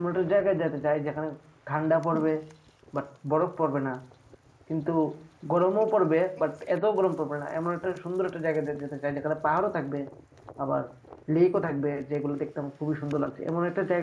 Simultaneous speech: No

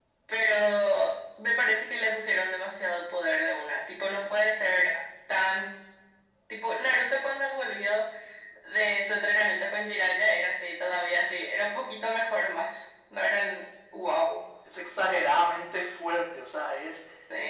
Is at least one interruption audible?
No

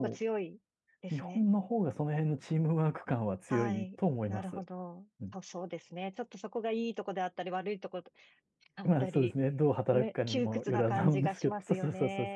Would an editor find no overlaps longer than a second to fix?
No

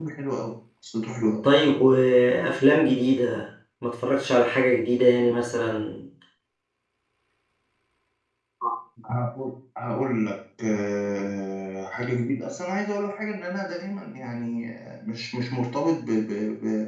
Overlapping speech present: No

